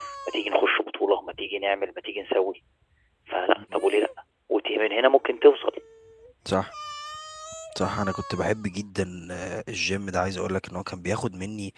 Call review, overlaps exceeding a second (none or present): none